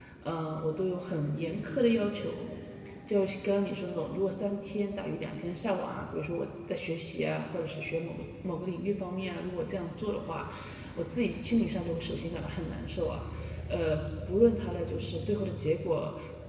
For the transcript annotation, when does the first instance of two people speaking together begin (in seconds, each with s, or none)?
none